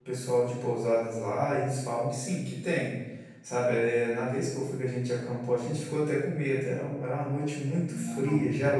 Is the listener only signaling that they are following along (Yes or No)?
Yes